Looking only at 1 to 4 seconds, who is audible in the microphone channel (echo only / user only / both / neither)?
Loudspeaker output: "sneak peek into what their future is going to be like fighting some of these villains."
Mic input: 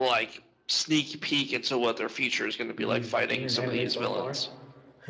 both